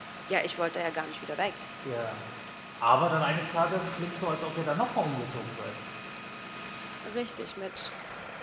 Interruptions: none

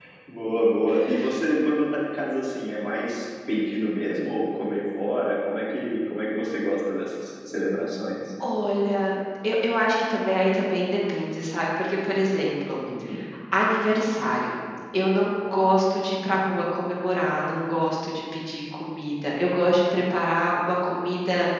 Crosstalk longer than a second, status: none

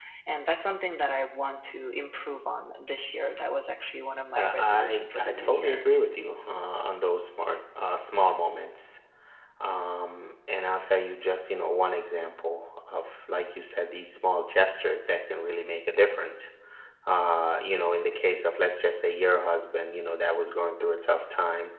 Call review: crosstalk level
present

